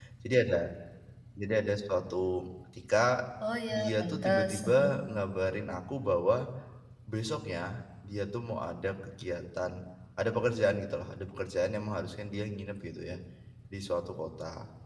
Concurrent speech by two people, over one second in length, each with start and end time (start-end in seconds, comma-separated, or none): 3.7-5.0